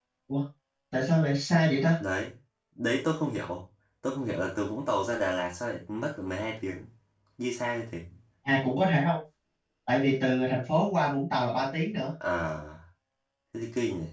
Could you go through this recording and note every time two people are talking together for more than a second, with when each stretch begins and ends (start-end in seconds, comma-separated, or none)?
none